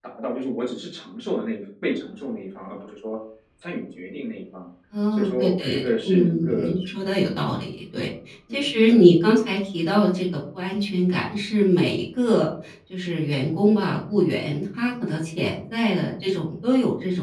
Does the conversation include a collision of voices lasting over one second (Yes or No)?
Yes